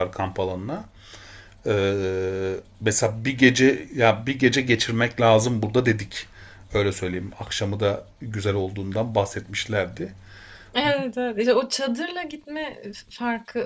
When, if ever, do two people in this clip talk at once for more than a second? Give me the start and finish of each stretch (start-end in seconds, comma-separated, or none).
none